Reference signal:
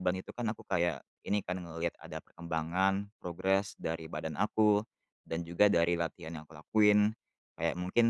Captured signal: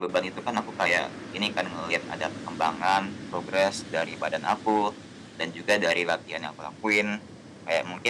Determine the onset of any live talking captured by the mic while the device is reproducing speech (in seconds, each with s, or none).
none